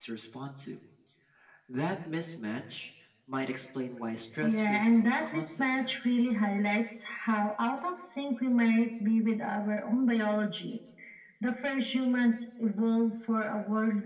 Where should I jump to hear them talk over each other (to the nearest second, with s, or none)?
4 s